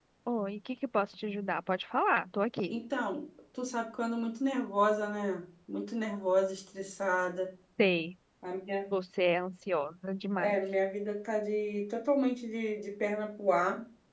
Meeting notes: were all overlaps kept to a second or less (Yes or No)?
Yes